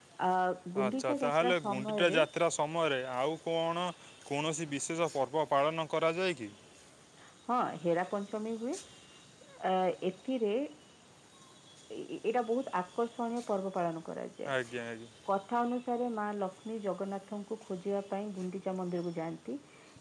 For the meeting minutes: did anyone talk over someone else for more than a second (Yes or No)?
Yes